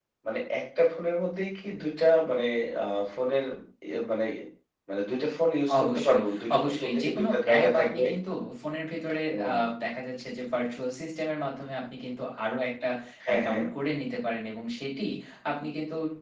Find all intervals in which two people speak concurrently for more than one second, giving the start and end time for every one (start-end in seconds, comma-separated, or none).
6.6-8.0